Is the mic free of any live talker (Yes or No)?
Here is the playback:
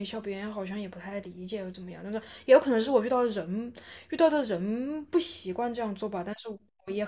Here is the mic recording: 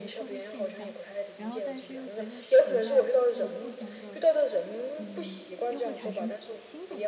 No